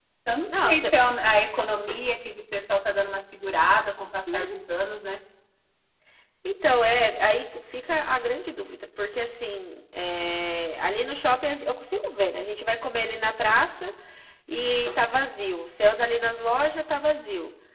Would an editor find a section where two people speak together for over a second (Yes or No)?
No